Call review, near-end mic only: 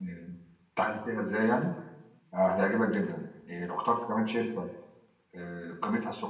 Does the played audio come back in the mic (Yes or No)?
No